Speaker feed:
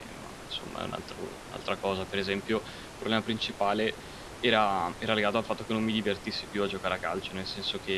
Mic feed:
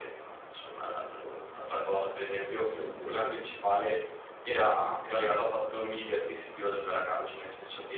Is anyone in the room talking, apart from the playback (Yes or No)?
Yes